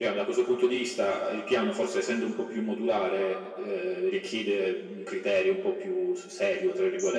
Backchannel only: No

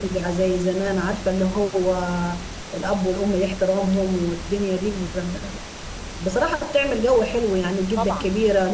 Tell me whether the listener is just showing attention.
Yes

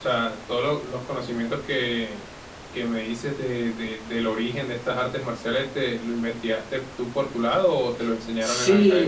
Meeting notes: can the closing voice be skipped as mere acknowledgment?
No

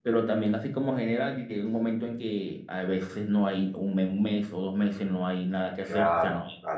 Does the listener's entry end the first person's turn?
Yes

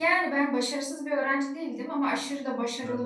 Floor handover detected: No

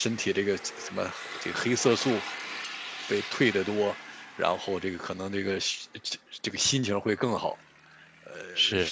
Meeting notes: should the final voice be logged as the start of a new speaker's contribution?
No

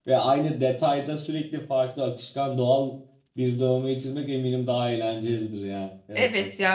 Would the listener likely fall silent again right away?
No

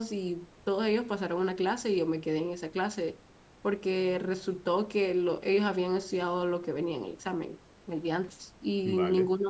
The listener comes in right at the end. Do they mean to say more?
No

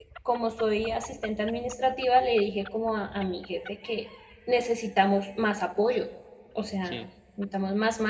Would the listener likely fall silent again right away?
Yes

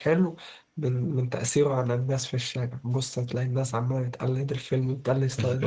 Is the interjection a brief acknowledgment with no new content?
No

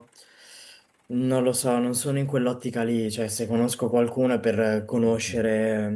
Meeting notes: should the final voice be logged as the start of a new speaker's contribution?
No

